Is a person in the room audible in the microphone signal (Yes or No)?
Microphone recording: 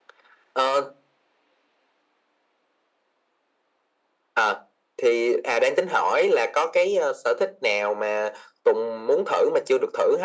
No